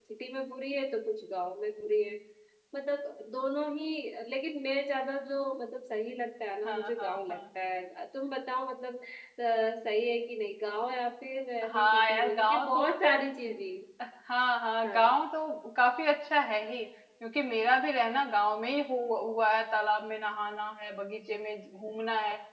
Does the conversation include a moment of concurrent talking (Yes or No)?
Yes